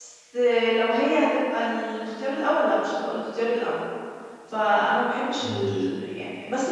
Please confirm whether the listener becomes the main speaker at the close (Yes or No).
No